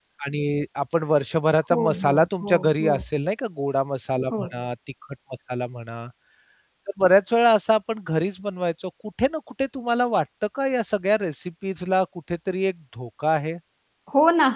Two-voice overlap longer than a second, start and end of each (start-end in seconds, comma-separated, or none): 1.7-2.9